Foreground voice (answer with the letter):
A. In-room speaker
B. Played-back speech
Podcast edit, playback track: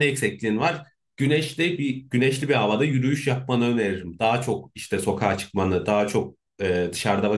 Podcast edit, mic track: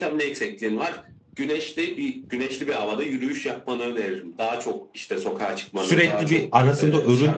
A